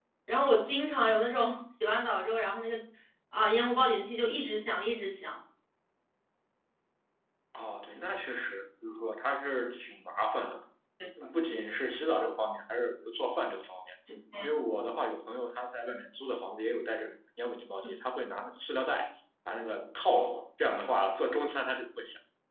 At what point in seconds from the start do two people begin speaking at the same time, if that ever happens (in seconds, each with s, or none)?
none